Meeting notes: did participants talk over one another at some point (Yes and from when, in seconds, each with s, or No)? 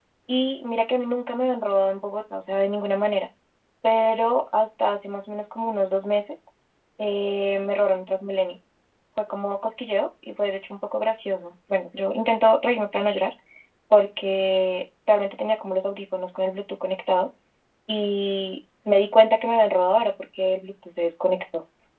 No